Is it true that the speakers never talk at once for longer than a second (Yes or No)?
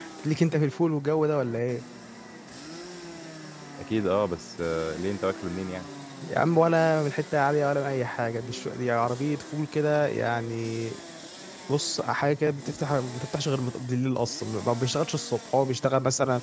Yes